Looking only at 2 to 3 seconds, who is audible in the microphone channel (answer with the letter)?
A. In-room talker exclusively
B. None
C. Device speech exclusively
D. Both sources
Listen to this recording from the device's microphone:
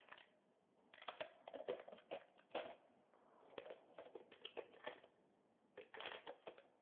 B